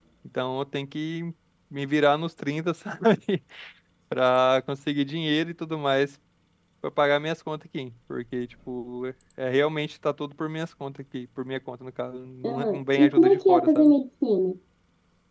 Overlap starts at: 12.4 s

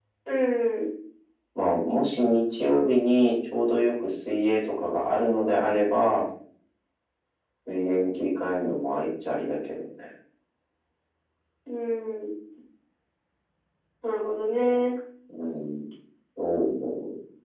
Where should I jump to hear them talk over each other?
none

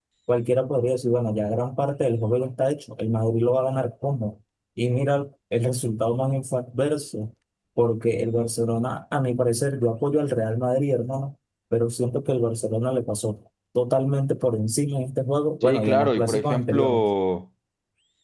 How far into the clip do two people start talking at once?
15.6 s

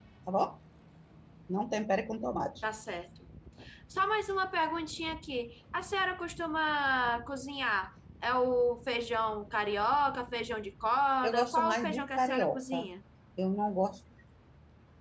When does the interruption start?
11.2 s

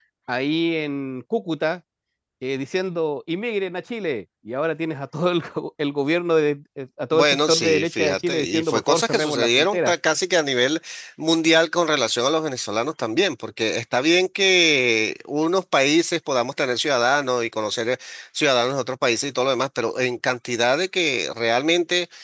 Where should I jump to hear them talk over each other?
7.1 s

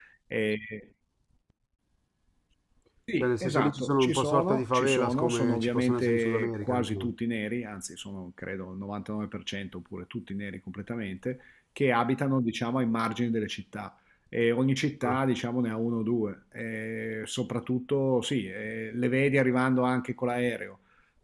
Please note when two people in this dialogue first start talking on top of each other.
3.2 s

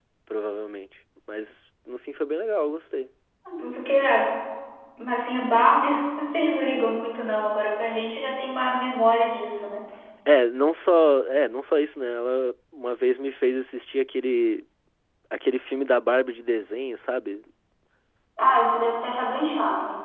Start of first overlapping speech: none

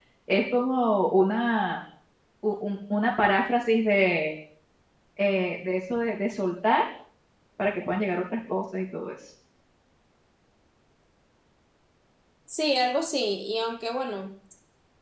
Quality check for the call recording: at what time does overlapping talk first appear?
none

